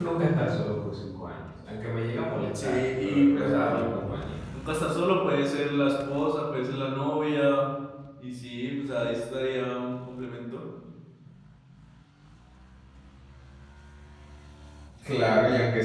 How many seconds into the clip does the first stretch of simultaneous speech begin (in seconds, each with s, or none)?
2.5 s